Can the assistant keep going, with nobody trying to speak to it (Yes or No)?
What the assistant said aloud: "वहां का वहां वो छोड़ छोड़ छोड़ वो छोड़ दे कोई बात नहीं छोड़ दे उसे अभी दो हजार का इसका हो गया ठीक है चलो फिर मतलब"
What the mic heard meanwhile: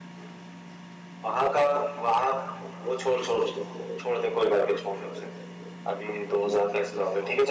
Yes